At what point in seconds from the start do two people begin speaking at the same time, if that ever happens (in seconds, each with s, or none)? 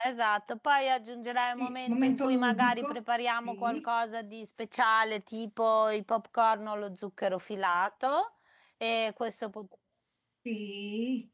1.6 s